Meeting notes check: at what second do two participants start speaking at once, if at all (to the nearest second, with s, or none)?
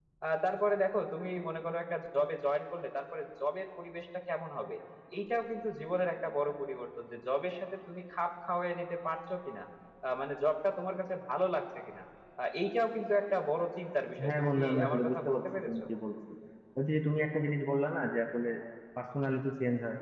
14 s